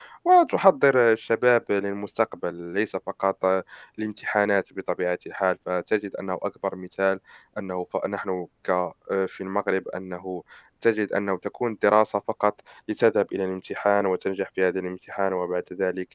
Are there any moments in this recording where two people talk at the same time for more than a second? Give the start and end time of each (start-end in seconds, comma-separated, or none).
none